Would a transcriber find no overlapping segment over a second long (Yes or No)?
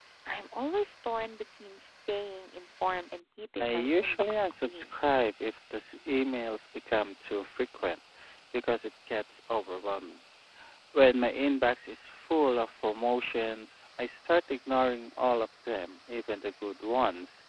No